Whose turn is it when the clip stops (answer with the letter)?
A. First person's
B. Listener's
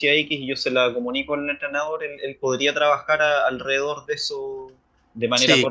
B